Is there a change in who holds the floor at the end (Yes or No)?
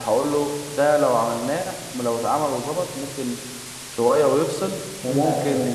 No